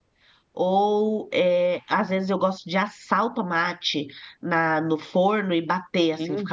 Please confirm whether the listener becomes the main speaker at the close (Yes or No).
Yes